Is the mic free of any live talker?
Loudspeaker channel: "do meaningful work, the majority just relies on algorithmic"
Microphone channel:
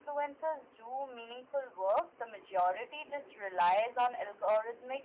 Yes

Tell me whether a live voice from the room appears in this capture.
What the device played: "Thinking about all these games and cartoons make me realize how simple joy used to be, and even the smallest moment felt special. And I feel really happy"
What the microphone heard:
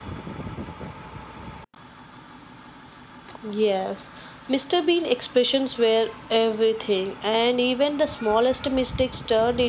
Yes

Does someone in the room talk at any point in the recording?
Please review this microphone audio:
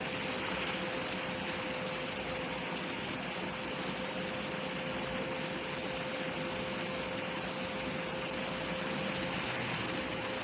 No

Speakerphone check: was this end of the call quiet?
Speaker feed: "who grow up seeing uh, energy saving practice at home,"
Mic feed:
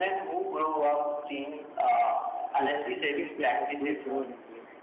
No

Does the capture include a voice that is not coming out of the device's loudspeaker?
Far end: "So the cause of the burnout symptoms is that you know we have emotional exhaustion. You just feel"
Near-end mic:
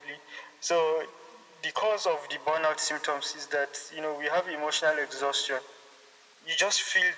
No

